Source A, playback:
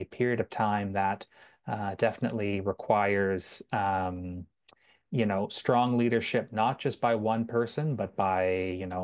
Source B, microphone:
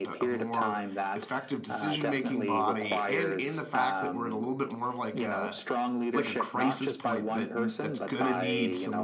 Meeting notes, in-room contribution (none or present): present